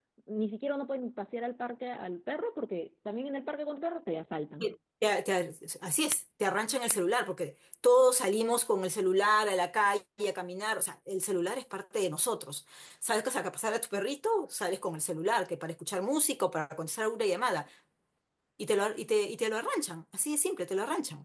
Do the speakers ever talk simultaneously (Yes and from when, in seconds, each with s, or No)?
No